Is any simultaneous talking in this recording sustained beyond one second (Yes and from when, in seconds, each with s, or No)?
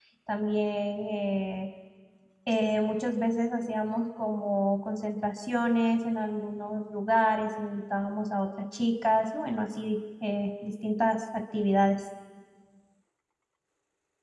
No